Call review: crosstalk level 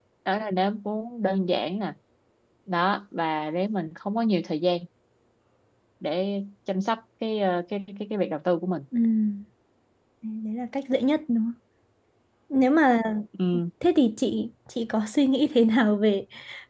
none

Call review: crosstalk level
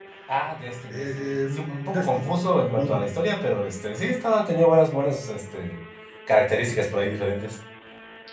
present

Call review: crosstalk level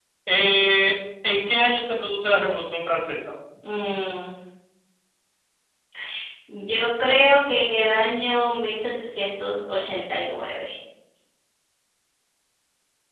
none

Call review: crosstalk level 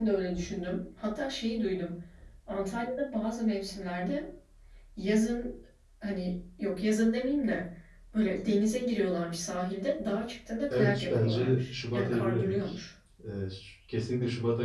present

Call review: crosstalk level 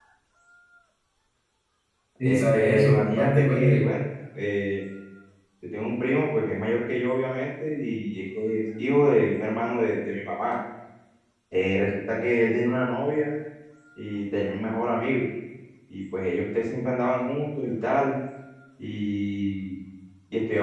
present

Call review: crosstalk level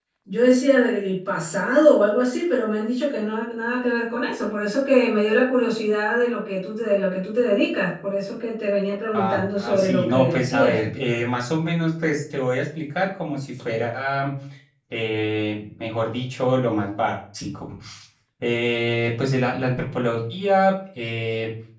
present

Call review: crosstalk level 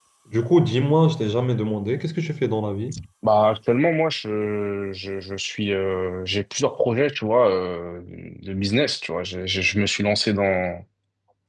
none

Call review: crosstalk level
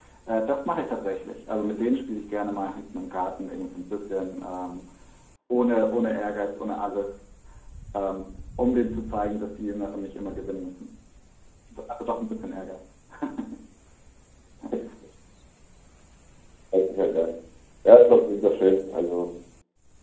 none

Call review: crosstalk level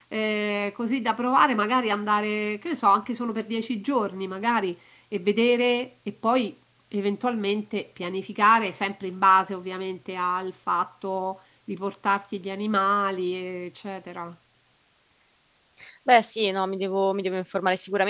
none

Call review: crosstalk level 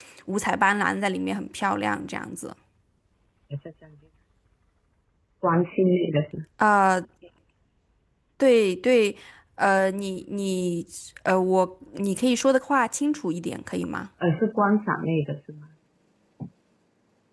none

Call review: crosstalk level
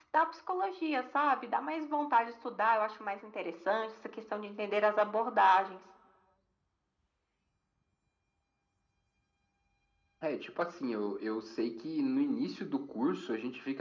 none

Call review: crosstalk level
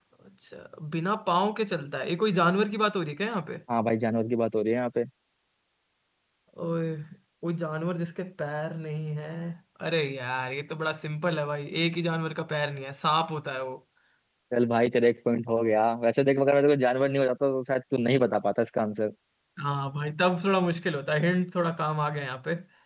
none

